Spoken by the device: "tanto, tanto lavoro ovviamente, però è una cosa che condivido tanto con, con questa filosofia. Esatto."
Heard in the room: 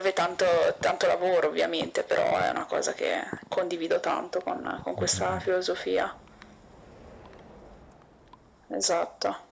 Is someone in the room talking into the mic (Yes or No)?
Yes